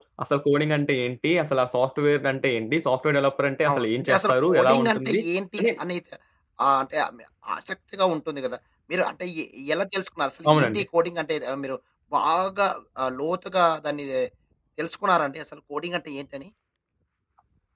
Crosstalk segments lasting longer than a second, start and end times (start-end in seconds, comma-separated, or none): 3.7-5.2